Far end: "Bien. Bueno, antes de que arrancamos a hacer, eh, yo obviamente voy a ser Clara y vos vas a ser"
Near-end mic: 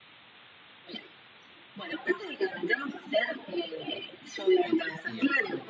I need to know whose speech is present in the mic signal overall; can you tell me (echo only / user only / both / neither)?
both